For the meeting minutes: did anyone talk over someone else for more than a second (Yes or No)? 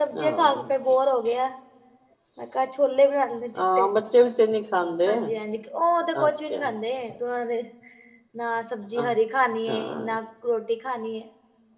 No